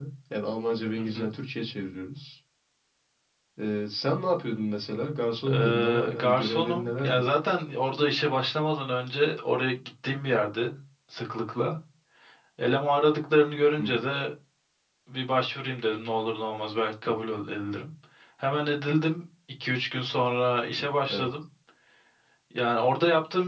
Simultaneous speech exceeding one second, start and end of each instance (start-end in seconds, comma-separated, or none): 5.5-7.3